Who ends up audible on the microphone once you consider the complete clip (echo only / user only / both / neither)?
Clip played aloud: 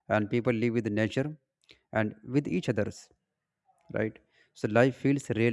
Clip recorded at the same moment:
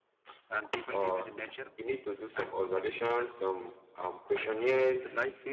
both